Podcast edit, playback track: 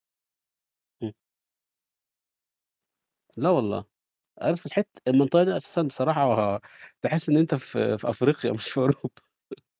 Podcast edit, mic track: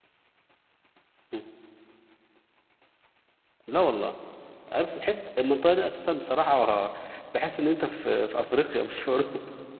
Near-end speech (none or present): none